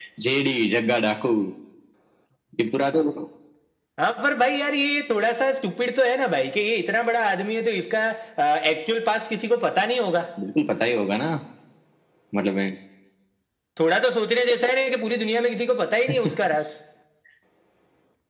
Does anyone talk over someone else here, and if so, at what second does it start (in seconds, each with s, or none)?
none